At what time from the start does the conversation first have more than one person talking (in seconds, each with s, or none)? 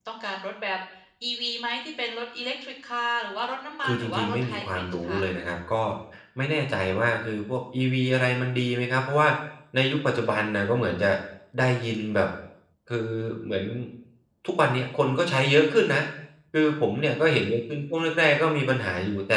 3.8 s